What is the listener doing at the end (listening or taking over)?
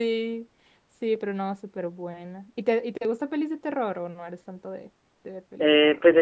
taking over